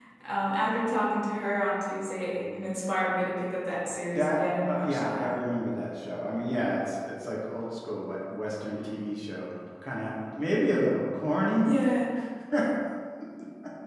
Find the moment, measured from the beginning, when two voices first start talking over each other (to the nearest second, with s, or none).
4 s